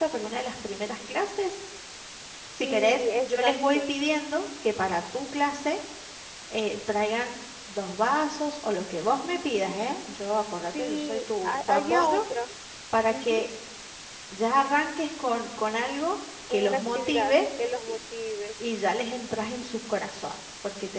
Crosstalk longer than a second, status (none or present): present